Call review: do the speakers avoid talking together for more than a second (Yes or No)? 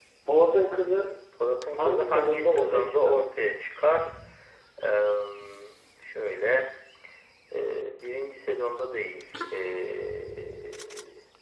No